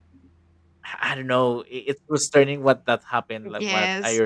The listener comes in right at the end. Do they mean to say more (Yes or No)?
Yes